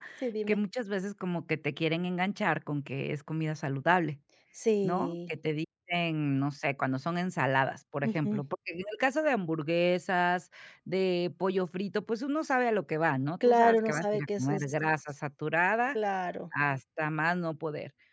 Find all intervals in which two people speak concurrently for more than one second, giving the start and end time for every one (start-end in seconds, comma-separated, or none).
13.4-14.7